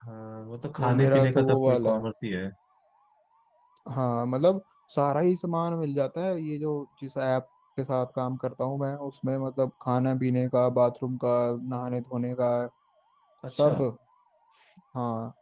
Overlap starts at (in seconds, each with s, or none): 0.8 s